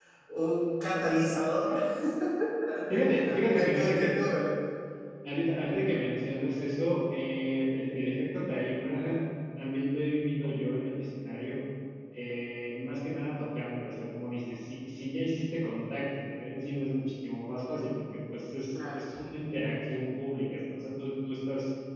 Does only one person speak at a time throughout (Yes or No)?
No